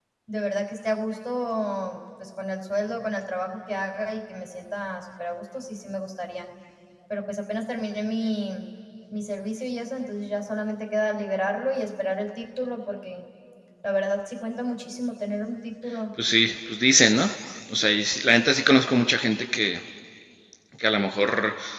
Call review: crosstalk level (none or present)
none